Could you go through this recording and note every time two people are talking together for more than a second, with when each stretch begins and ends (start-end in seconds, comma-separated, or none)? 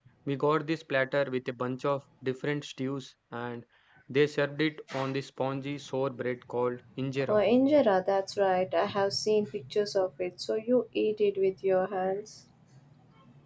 none